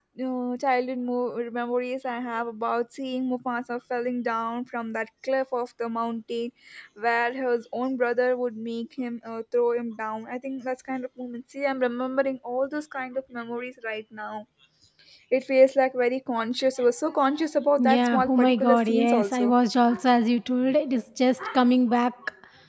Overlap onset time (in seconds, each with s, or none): 17.8 s